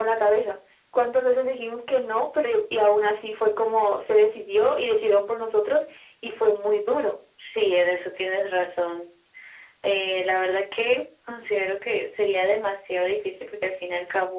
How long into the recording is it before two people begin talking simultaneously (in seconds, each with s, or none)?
none